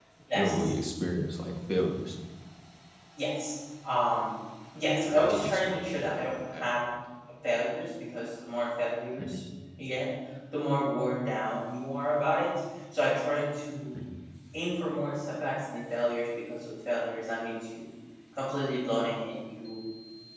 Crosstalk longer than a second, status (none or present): present